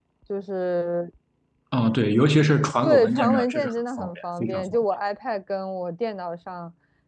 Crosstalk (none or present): present